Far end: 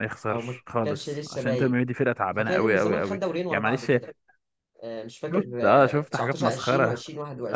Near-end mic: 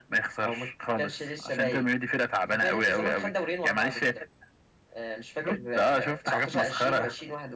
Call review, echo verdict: present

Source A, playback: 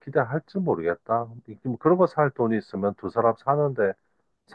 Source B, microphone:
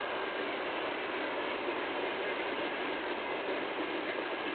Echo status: none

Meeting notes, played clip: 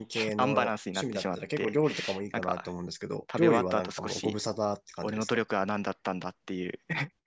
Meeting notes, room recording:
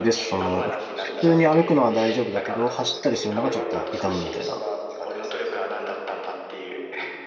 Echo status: present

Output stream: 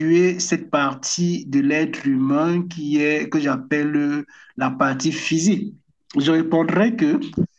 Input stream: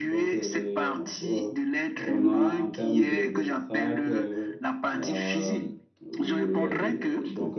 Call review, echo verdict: present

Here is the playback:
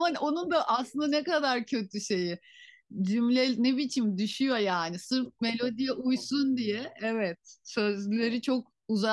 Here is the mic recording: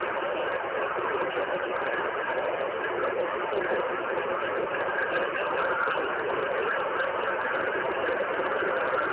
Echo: none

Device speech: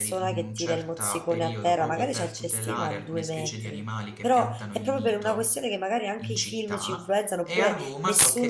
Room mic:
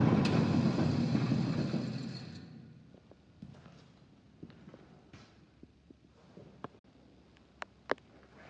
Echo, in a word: none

